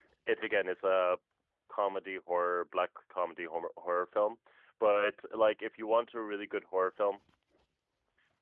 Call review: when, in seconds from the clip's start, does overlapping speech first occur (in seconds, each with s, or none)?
none